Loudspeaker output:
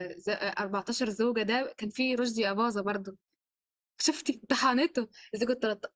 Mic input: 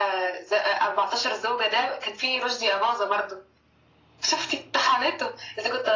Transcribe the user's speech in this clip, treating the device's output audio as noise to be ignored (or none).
none